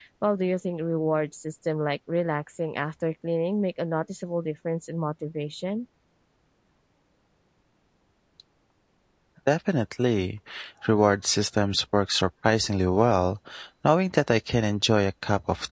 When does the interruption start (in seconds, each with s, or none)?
none